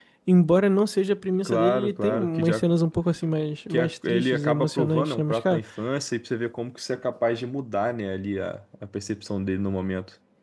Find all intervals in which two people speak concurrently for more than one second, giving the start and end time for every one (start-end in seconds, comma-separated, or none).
1.4-2.7, 3.7-5.6